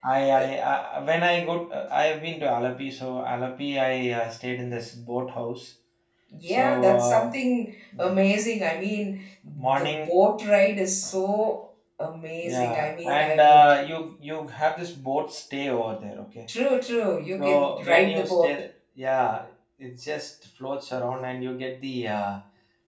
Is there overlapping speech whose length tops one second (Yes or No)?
Yes